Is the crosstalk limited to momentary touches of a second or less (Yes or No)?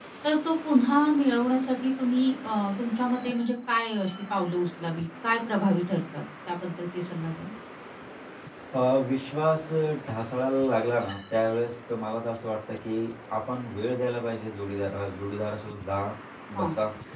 Yes